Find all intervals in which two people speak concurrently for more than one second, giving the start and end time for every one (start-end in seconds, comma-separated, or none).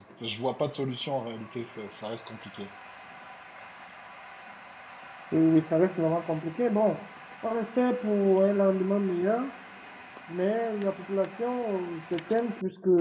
none